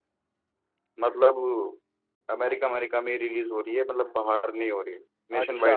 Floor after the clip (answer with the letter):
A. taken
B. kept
A